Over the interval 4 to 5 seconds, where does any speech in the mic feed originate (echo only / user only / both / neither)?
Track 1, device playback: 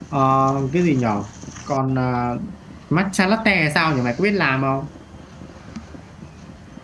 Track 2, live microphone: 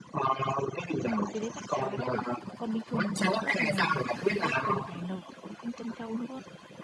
both